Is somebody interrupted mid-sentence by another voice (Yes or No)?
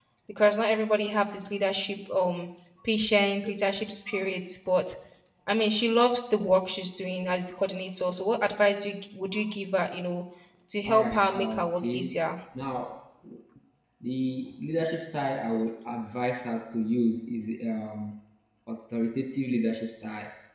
Yes